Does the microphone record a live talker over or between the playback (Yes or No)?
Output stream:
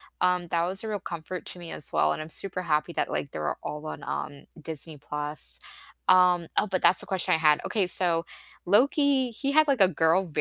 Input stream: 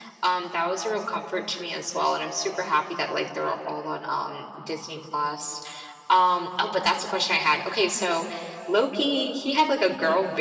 No